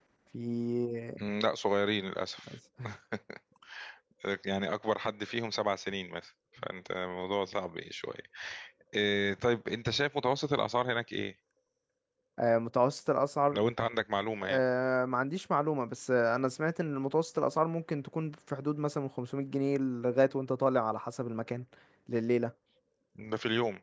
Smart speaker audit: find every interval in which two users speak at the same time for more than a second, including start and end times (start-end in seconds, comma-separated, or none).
none